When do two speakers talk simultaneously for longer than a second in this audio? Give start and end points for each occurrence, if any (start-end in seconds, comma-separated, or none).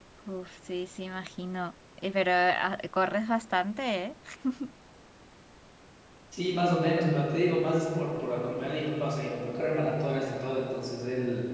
none